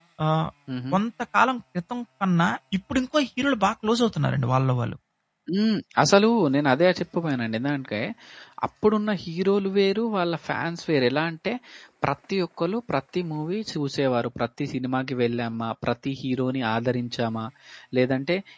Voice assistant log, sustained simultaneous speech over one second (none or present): none